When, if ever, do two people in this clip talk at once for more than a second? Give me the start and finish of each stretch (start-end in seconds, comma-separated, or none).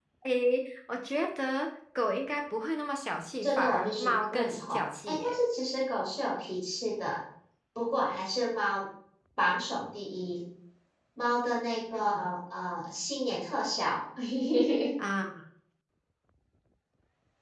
3.4-5.3